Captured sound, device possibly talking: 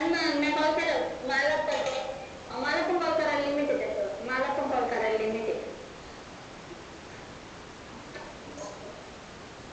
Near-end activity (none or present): none